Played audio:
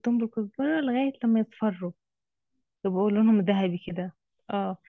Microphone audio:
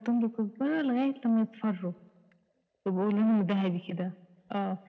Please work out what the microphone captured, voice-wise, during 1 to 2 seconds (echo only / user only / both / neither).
echo only